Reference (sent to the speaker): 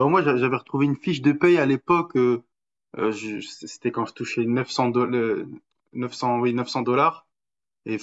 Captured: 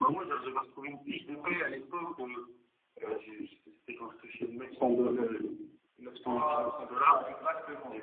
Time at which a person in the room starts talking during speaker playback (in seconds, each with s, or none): 6.3 s